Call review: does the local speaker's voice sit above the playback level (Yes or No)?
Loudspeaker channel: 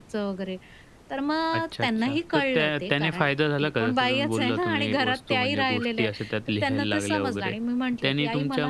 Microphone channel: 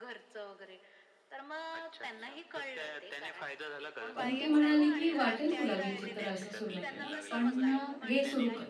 Yes